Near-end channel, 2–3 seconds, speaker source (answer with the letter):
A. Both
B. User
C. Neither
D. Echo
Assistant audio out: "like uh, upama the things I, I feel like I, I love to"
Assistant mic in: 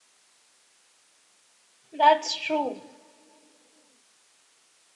B